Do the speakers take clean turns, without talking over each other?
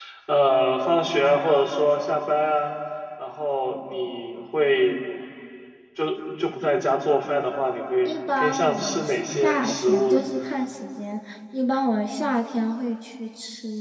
No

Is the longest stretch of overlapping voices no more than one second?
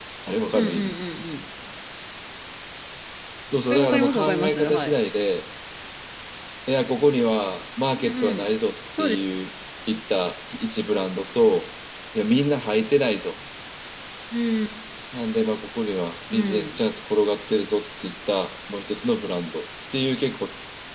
No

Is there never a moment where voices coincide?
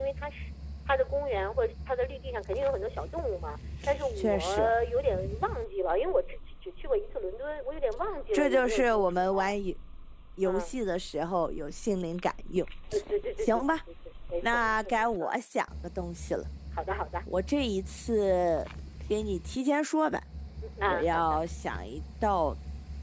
No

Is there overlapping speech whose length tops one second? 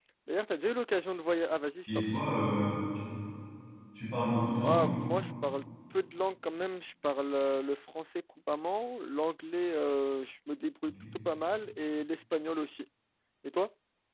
No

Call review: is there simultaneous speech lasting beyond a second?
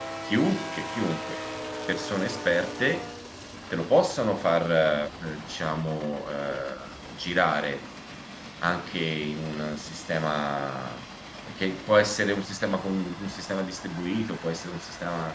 No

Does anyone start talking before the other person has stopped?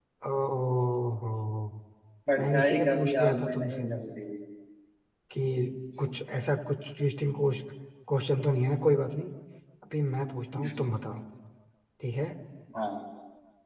Yes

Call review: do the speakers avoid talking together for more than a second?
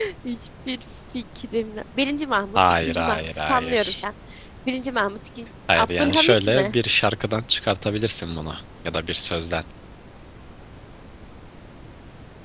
No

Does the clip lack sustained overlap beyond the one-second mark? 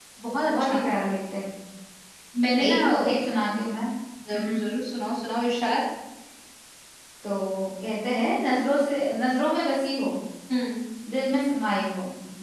Yes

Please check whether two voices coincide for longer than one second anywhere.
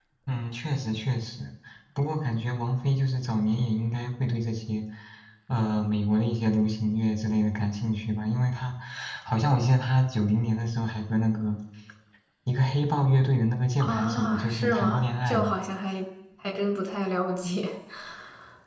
Yes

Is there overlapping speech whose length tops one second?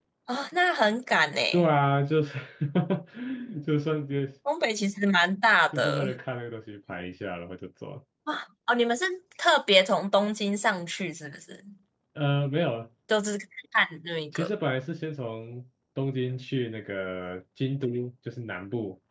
No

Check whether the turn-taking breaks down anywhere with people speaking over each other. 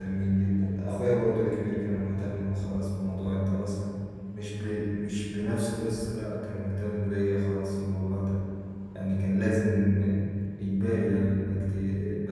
No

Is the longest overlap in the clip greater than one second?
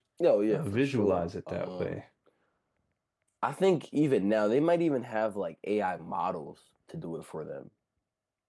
Yes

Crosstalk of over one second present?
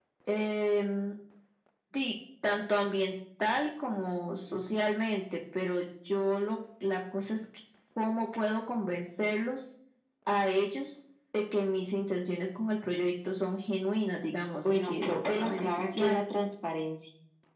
Yes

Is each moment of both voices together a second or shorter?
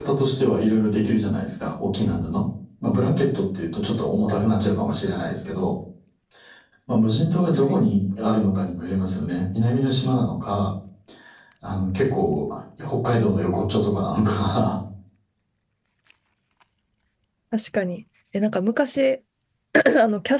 Yes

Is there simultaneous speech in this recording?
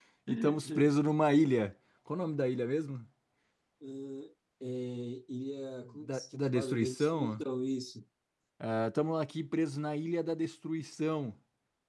Yes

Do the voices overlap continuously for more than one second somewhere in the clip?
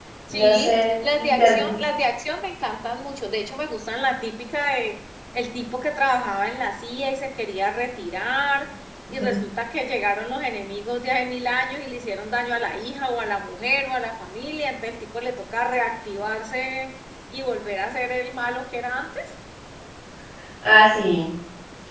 Yes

